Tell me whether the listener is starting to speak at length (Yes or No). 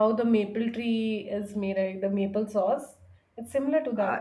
Yes